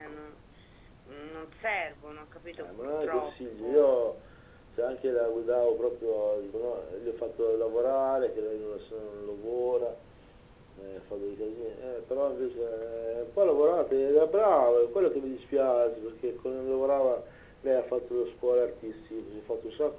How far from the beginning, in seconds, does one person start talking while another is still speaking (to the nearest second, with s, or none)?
3 s